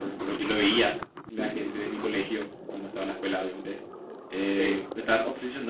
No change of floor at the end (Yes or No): Yes